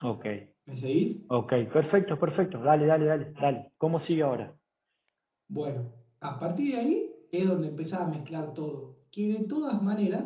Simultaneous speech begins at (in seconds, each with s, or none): none